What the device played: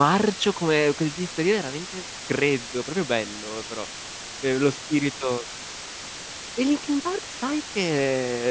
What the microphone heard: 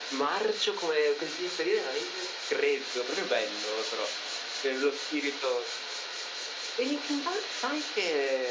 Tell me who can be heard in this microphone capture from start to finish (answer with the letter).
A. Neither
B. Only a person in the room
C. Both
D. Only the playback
D